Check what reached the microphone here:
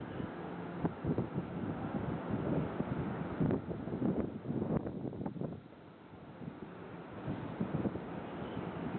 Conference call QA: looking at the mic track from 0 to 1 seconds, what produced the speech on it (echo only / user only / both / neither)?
neither